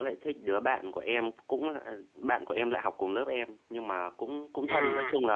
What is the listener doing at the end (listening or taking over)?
listening